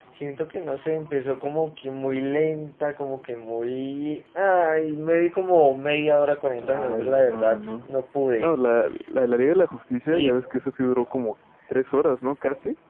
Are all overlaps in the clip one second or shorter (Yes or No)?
No